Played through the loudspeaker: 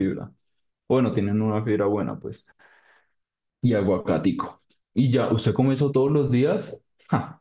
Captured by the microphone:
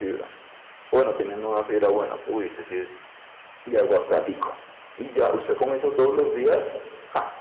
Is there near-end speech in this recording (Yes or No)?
Yes